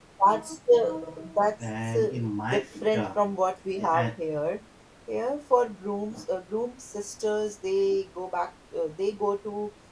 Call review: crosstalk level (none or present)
present